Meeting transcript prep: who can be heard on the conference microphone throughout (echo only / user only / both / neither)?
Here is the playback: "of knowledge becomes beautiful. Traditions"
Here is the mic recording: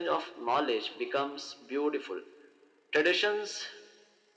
echo only